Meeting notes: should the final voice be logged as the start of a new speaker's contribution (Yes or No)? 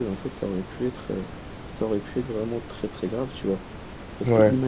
No